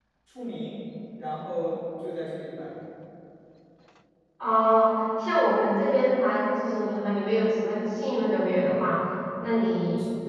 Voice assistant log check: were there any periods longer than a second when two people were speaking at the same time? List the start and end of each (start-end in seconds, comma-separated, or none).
none